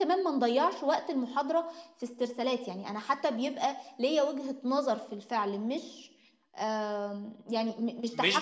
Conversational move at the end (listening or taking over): taking over